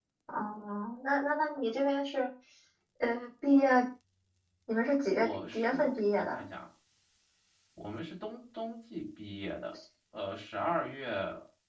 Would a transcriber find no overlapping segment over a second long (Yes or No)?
No